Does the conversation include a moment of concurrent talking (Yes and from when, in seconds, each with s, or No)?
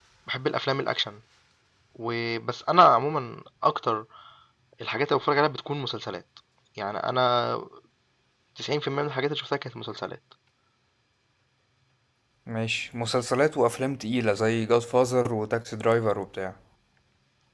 No